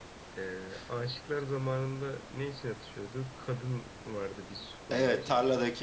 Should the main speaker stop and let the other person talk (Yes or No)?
Yes